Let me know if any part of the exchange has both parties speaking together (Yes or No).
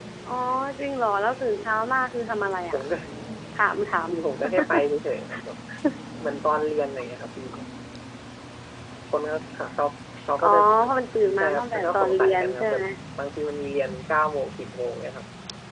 Yes